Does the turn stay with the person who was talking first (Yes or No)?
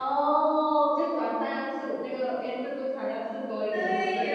No